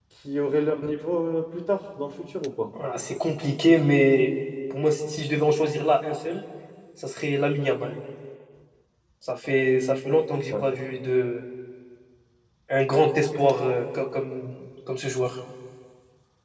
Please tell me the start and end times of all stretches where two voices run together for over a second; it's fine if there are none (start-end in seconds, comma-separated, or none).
none